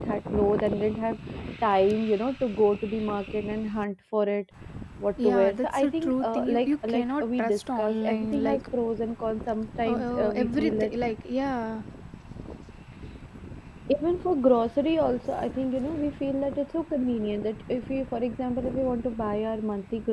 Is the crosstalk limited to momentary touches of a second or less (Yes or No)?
No